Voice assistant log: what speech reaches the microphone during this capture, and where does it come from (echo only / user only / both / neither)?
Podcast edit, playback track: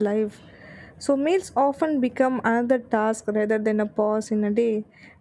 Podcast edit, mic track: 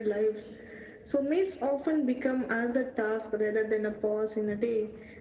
echo only